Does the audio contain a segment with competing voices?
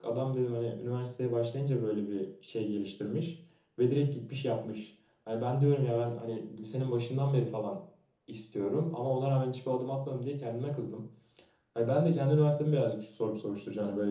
No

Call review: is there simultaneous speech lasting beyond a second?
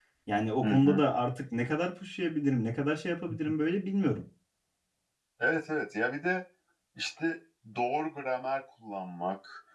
No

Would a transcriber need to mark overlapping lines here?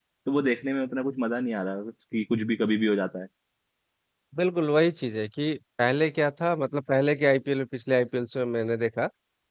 No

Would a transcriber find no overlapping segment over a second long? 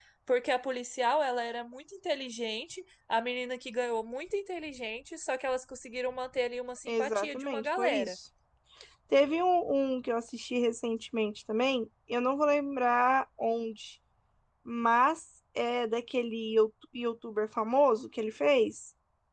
No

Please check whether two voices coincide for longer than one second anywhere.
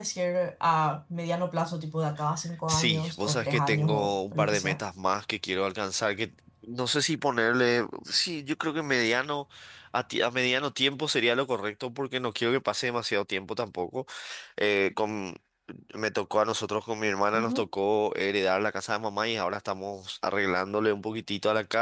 Yes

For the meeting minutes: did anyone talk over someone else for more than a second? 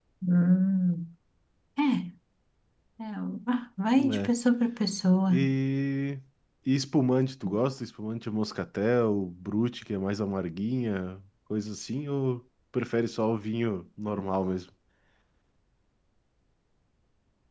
No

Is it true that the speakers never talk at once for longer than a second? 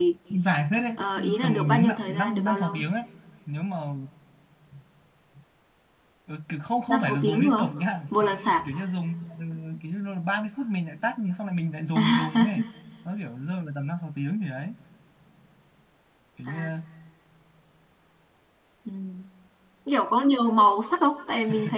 No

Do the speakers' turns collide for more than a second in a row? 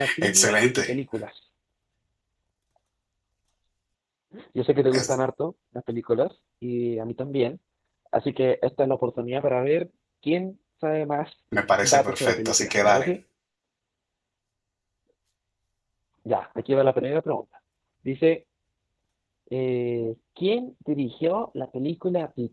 Yes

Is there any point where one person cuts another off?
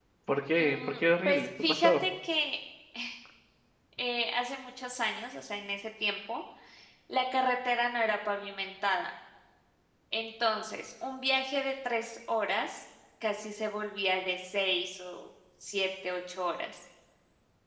Yes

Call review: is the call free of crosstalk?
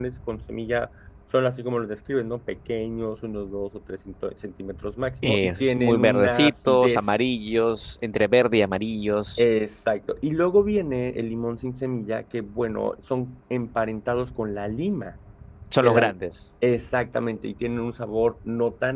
No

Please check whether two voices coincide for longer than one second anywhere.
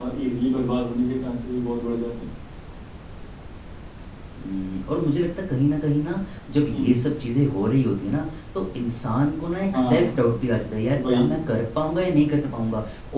No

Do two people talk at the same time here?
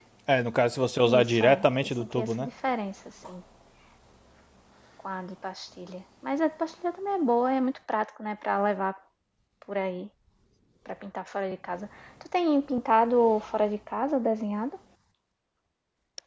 Yes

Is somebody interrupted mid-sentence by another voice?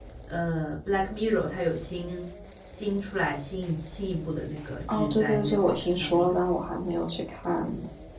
Yes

